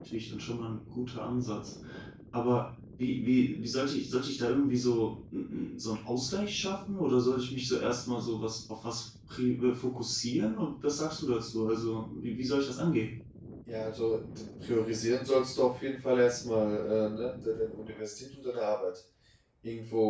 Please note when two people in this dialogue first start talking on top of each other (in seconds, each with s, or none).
none